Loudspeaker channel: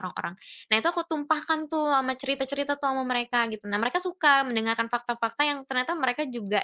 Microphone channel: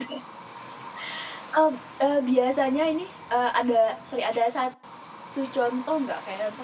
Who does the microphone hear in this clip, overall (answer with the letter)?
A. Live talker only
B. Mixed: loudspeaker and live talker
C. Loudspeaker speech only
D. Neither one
A